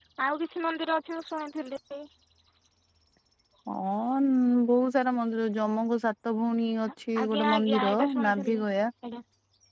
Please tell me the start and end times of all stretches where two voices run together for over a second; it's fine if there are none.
7.2-8.5

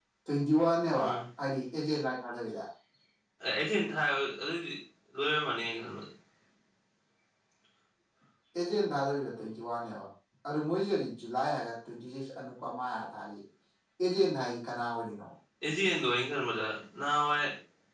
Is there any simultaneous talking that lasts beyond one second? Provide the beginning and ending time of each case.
none

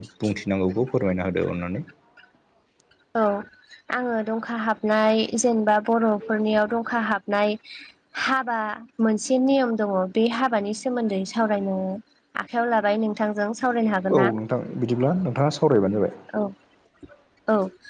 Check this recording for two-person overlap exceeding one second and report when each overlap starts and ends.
none

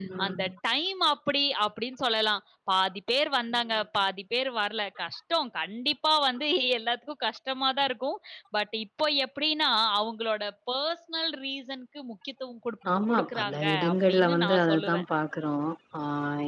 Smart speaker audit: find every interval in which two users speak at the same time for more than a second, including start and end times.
13.1-15.0

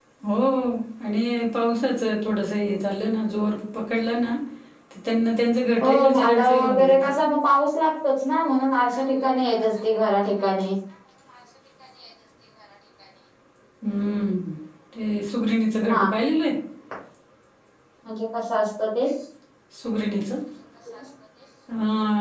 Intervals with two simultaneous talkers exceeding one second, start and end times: 5.8-7.1

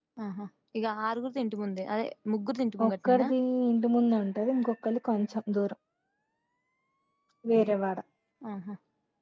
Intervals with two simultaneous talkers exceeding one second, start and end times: none

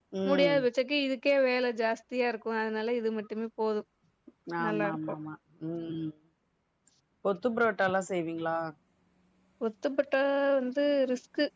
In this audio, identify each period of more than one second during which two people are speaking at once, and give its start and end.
none

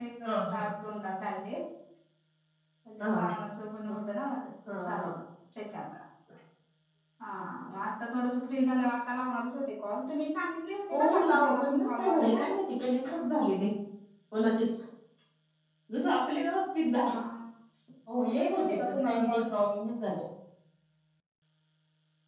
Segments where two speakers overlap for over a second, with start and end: 10.9-12.4, 18.2-19.4

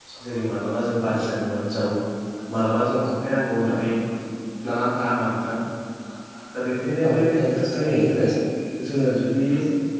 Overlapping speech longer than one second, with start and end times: 7.1-8.3

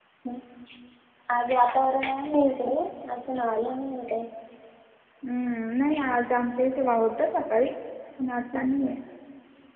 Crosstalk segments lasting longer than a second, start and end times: none

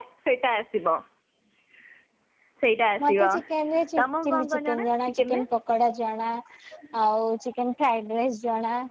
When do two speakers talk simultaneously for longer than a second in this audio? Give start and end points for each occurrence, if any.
4.0-5.4

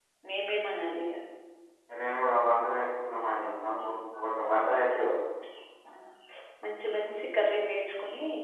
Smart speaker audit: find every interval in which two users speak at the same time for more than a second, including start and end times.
none

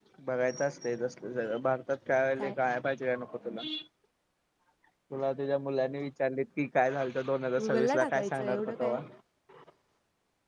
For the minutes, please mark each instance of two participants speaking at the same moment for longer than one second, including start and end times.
7.6-9.0

